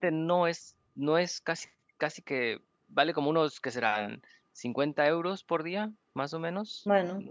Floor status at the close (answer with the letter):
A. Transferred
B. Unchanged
B